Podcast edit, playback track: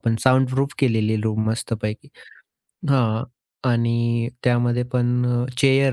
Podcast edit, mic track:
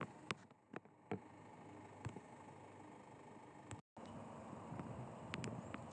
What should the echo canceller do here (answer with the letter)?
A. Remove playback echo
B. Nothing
B